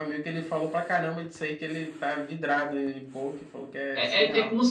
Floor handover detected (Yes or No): Yes